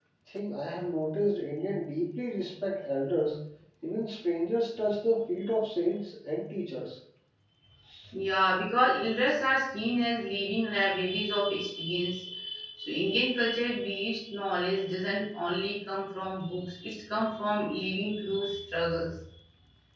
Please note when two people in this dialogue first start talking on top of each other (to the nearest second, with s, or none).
none